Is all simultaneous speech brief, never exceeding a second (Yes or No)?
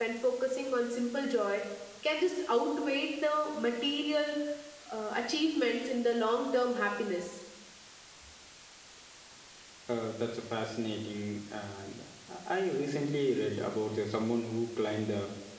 Yes